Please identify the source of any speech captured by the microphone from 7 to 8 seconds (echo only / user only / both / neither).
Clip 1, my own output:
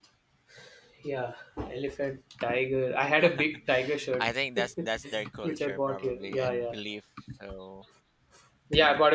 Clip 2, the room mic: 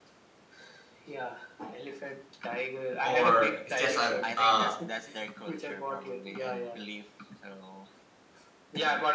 echo only